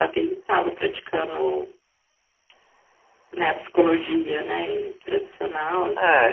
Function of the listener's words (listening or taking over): taking over